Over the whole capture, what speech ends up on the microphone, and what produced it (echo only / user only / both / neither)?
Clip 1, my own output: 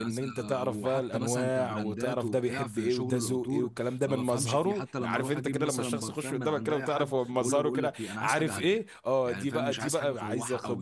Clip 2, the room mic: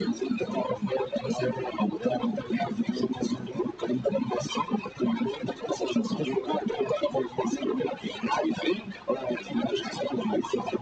echo only